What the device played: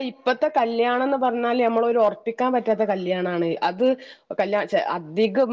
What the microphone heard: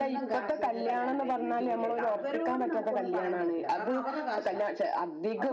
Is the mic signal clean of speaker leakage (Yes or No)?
No